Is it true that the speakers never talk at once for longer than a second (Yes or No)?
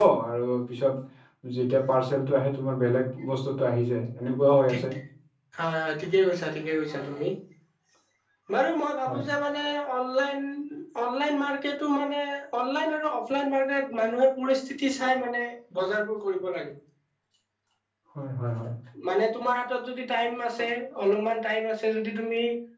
Yes